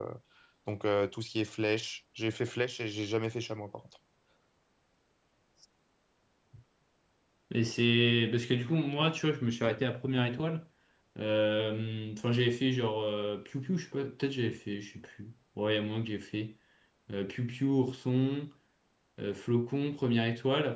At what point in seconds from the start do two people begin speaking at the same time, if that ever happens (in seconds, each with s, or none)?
none